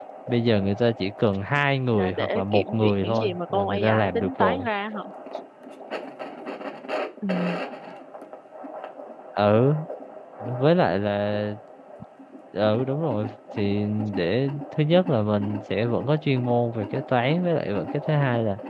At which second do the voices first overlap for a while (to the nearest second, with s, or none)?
2 s